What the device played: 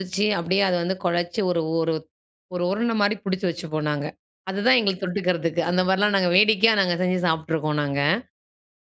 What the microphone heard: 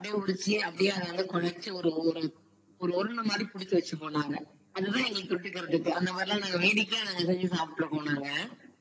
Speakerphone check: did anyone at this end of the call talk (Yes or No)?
No